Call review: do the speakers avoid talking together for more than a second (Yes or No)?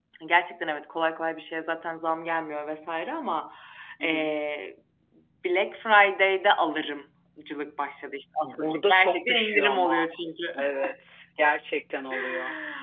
No